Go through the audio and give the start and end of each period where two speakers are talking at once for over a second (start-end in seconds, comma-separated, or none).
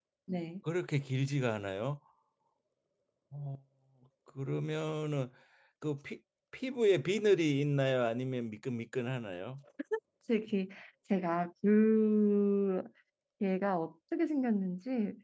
none